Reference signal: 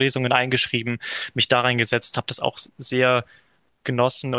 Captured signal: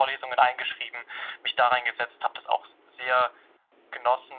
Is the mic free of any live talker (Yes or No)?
Yes